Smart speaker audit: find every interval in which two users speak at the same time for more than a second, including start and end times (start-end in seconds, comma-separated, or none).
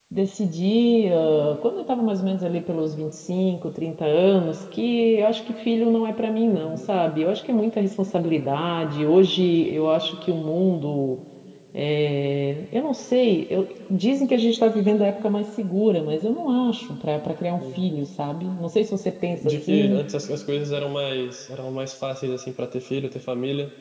none